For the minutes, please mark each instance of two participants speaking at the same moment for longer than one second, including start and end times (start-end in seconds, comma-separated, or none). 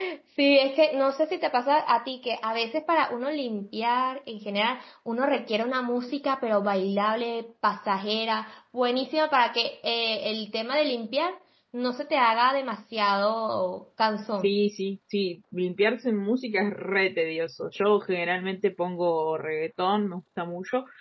none